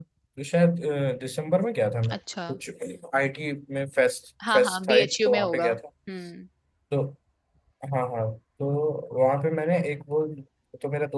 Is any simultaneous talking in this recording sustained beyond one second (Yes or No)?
Yes